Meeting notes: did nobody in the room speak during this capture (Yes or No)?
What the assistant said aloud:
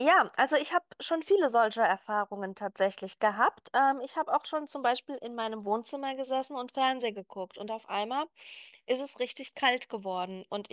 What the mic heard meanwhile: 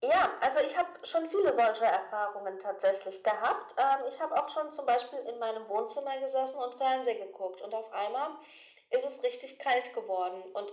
Yes